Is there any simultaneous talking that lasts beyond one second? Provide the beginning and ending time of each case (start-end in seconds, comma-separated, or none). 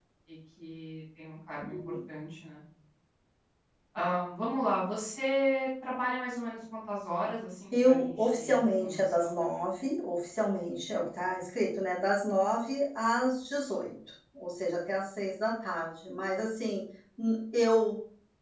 7.7-9.4